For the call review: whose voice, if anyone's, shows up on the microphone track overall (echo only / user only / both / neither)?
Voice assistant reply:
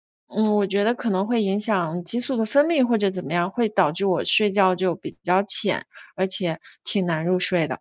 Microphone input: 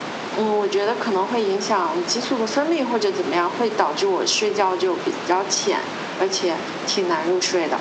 echo only